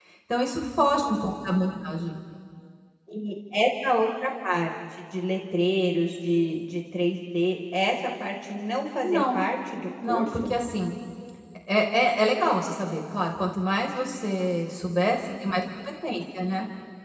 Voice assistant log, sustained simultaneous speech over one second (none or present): none